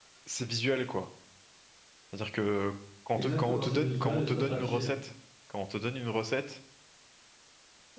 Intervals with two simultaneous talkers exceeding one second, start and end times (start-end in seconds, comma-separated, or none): 3.1-4.9